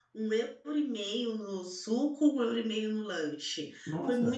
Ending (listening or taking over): listening